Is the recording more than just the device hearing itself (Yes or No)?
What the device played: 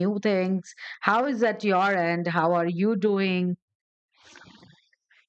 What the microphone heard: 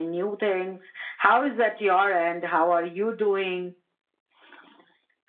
No